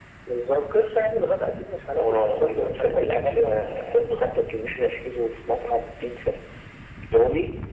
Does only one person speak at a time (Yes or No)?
No